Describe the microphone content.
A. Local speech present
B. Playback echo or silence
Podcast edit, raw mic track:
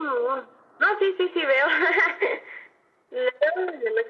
B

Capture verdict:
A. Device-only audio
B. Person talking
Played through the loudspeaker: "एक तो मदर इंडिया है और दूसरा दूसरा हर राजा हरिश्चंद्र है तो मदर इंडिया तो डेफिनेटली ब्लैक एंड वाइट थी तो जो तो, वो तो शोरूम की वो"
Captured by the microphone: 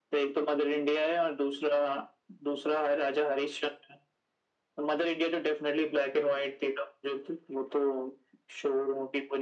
A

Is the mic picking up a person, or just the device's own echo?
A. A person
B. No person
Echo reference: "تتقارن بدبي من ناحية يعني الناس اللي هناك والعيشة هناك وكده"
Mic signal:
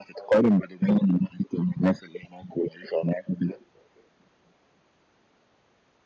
B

